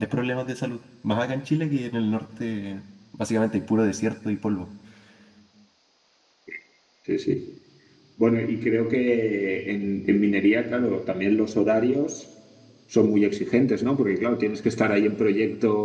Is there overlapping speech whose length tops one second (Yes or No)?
No